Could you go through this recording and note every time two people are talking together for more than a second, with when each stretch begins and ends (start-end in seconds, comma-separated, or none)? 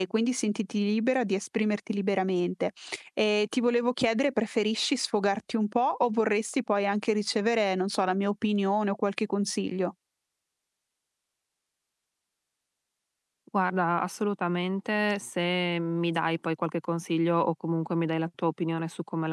none